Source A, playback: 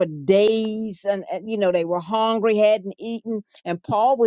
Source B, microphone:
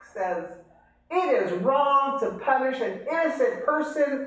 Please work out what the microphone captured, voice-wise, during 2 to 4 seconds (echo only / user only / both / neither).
user only